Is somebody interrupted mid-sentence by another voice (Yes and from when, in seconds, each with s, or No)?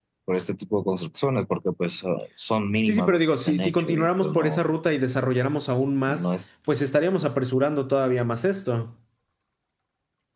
Yes, from 2.8 s